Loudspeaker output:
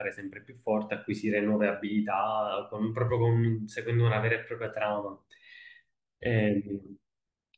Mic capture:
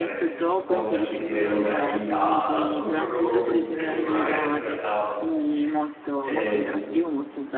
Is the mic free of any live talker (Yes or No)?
No